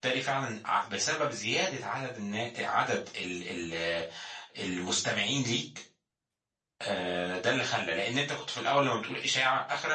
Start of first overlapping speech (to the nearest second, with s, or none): none